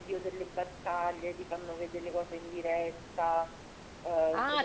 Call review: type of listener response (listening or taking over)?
taking over